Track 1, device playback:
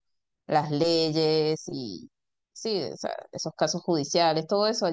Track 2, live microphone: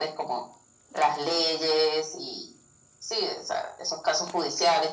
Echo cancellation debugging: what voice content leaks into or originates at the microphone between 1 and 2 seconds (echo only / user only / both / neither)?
echo only